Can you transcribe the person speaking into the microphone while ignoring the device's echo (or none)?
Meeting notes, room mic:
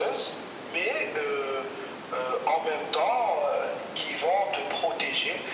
none